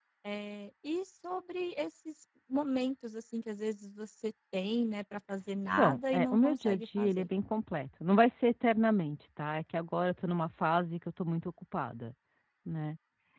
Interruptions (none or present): present